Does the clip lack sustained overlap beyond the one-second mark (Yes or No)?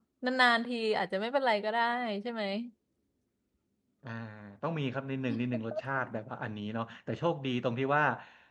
Yes